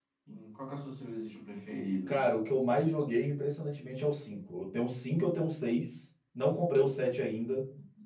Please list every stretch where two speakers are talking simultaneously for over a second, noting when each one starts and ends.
none

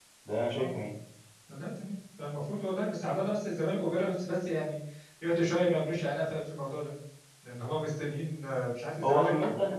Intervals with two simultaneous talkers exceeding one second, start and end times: none

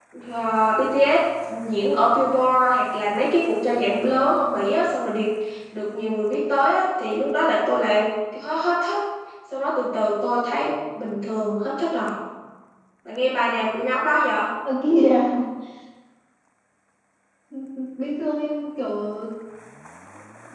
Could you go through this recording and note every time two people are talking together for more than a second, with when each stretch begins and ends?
none

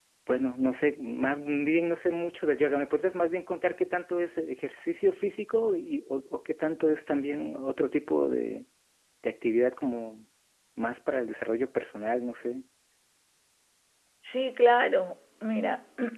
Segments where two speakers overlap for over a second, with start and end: none

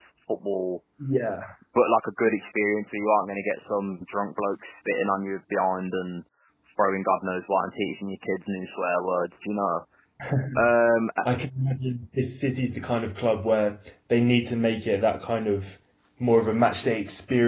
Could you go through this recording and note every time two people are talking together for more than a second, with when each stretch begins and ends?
none

